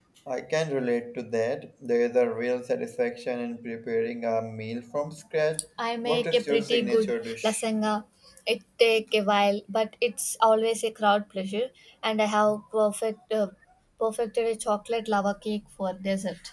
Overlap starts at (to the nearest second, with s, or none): 6 s